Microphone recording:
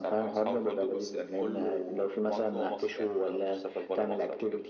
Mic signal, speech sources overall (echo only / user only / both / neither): echo only